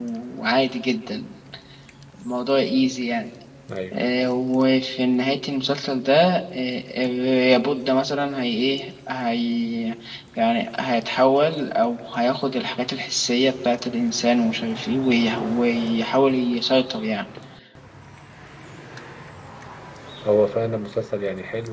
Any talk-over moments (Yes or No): No